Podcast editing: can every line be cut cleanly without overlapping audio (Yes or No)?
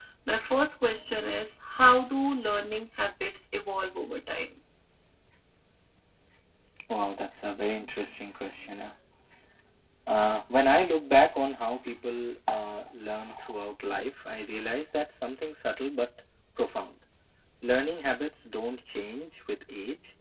Yes